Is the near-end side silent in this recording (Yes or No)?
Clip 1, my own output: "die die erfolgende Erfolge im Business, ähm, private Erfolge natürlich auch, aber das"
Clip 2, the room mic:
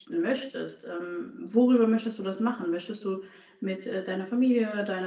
No